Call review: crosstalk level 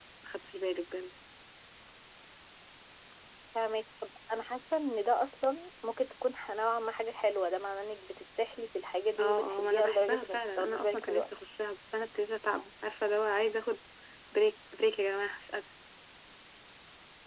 present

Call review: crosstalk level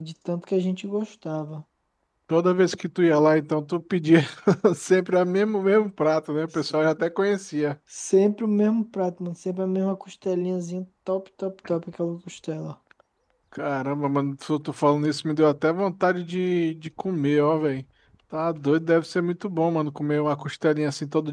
none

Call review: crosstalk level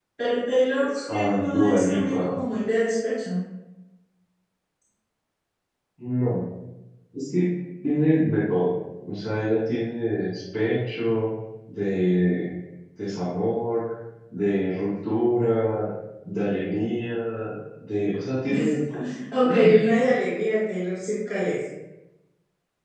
present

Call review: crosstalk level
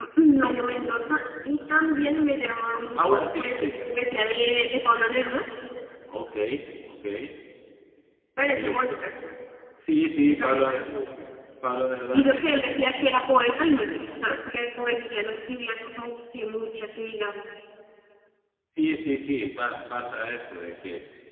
present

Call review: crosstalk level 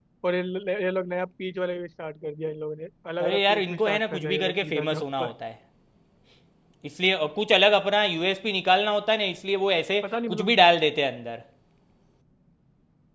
present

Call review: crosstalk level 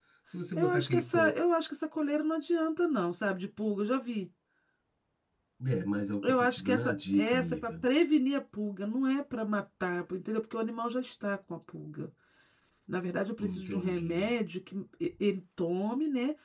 present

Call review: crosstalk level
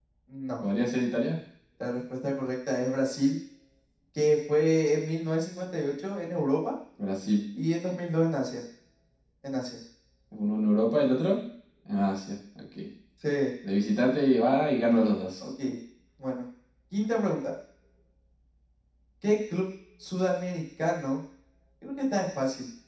none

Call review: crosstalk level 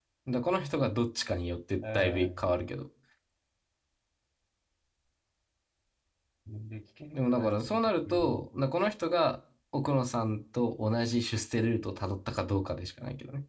present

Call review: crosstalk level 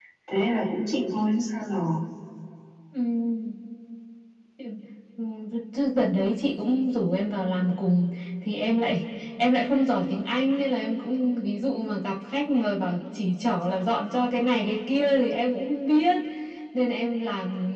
none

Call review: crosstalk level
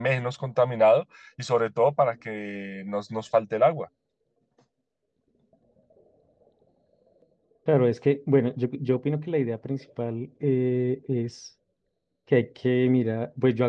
none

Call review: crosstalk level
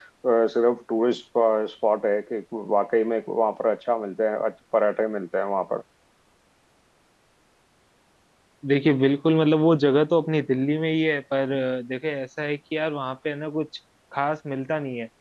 none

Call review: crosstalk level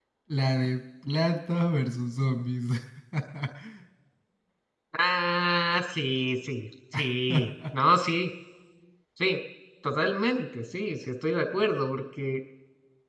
none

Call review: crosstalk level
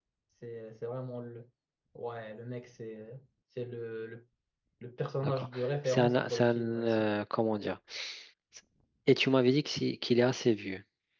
present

